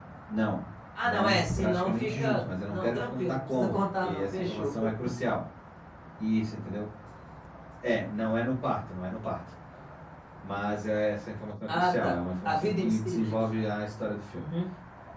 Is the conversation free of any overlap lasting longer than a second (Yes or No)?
No